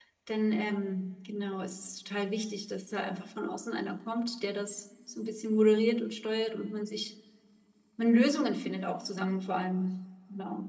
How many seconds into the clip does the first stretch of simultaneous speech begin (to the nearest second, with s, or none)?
none